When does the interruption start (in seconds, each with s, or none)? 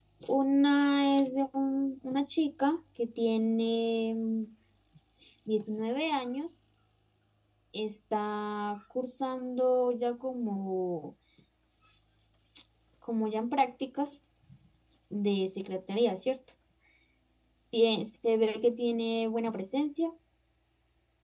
none